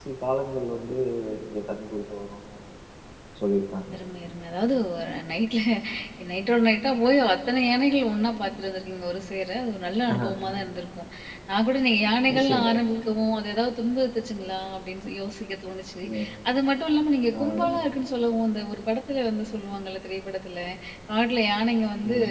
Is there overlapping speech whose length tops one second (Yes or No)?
No